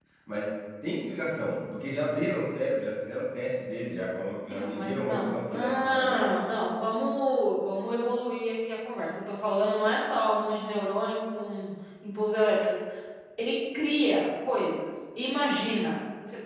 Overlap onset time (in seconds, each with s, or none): 4.5 s